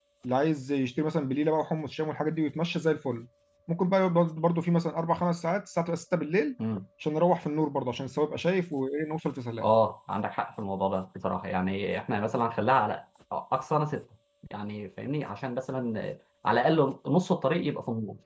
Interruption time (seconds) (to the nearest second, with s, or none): none